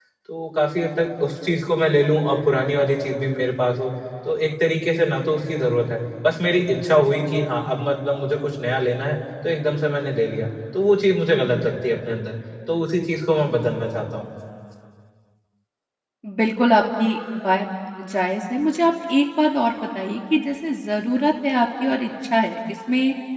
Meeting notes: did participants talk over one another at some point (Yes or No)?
No